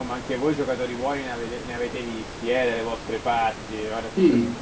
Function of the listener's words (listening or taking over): listening